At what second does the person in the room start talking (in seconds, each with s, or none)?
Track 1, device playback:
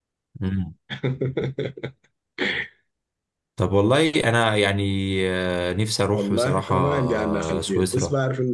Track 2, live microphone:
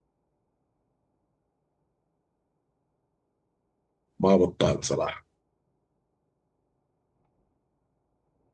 4.2 s